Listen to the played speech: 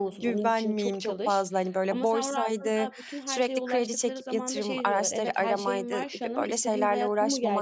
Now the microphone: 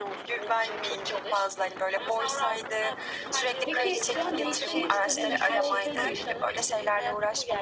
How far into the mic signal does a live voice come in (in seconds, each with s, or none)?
3.6 s